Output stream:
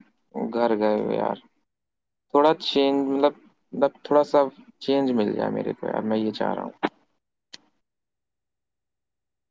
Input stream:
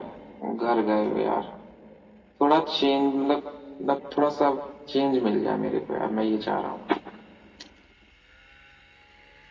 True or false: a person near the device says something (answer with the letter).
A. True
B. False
B